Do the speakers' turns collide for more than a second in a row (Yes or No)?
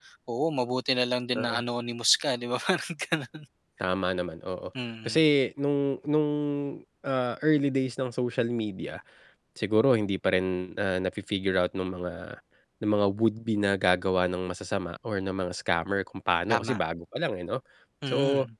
No